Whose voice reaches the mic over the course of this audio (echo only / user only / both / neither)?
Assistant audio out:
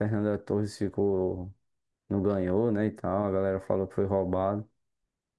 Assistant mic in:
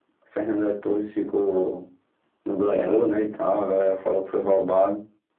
both